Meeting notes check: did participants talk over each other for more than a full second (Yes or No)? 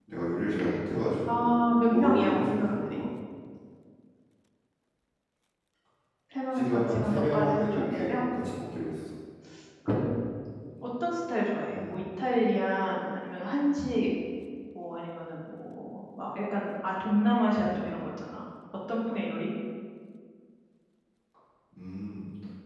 Yes